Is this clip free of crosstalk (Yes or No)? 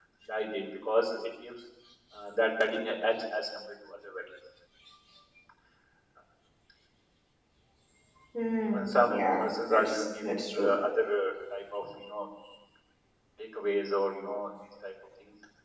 No